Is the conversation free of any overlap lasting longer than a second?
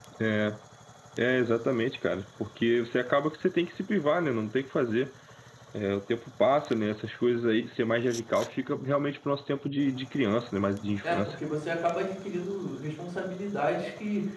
Yes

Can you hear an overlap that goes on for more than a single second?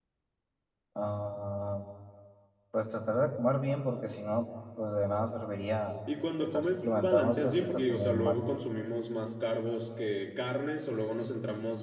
Yes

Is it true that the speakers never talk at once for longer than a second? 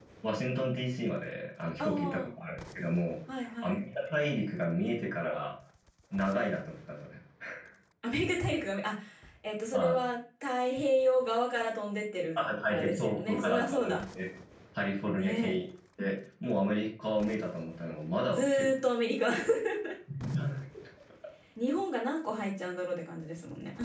No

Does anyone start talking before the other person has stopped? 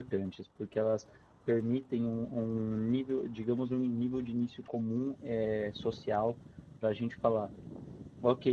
No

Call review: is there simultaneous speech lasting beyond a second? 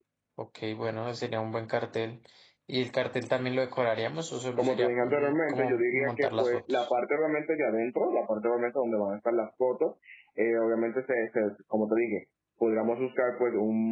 Yes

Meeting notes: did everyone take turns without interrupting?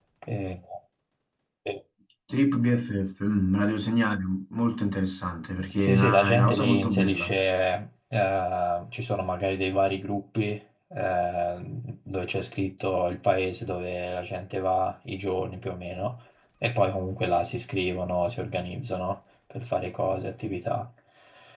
No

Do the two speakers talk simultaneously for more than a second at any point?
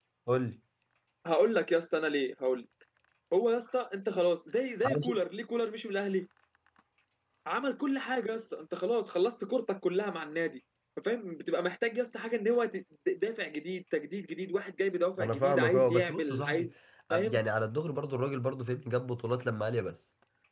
Yes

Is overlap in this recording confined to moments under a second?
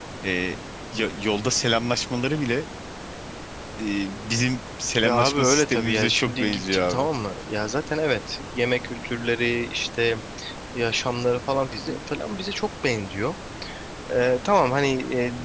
No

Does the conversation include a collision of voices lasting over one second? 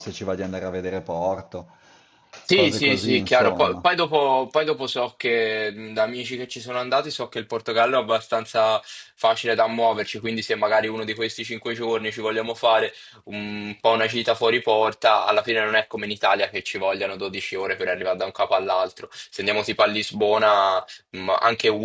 Yes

